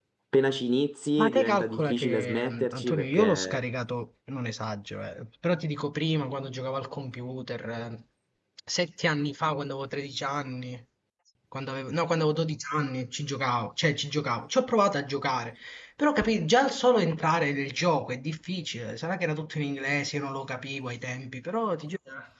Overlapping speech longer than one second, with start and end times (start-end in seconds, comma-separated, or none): 1.2-3.6